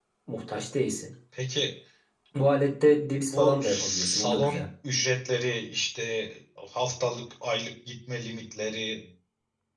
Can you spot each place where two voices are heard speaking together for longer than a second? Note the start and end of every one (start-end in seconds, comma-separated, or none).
3.3-4.6